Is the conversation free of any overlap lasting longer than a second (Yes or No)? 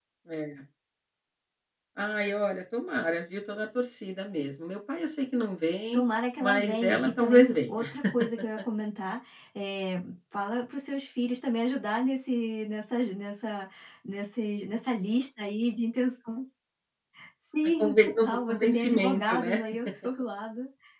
No